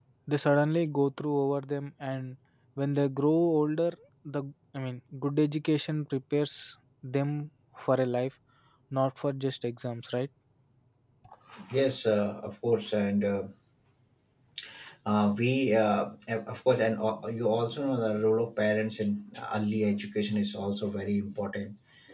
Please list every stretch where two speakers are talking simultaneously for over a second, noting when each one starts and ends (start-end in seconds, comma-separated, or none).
none